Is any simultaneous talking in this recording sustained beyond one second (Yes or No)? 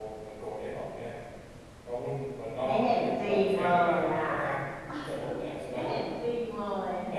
Yes